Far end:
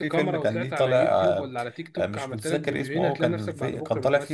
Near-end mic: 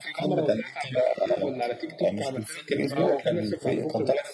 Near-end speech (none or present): present